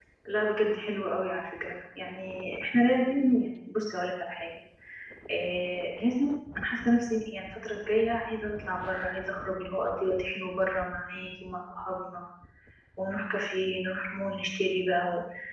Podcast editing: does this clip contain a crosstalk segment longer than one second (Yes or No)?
No